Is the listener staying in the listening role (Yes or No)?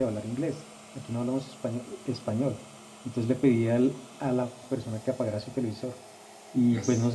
Yes